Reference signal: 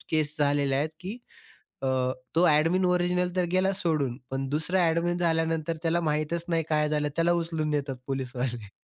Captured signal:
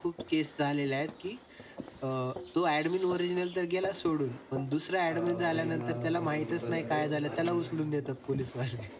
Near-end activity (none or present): present